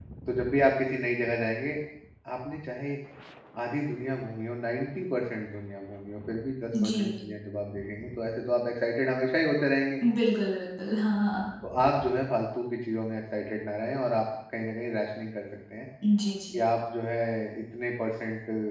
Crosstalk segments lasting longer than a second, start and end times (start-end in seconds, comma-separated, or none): none